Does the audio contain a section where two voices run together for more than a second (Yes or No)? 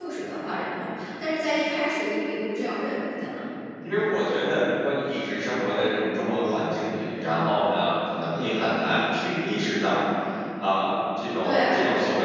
No